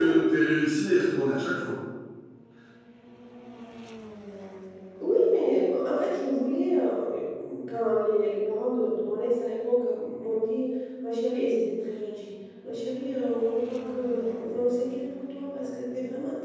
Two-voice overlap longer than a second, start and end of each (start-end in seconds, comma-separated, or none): none